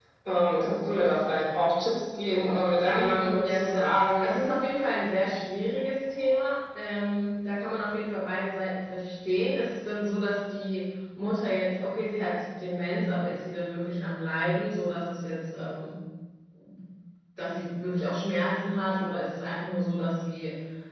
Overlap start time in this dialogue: 3.0 s

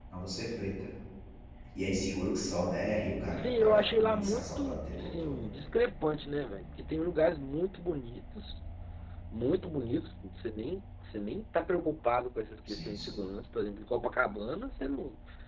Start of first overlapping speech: 3.3 s

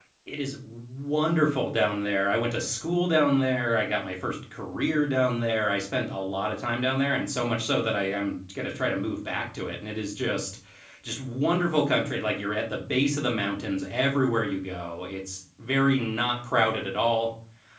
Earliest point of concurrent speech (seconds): none

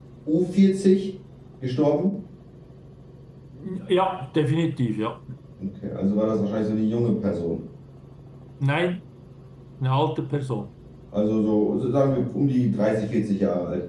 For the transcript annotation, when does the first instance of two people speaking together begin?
none

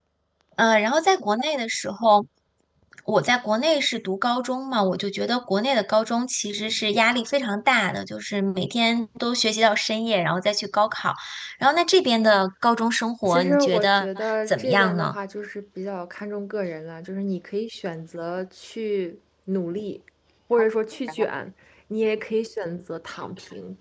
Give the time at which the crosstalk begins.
13.2 s

